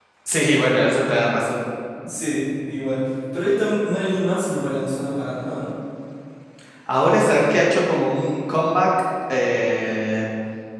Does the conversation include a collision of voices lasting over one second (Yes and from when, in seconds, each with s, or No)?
No